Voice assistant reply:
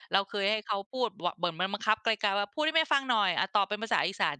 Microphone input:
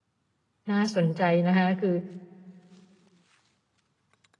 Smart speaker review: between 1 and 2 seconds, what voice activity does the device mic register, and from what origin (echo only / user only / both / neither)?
user only